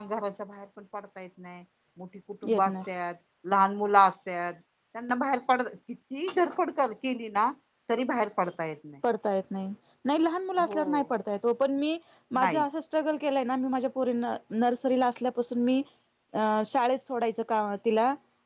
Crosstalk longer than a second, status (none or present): none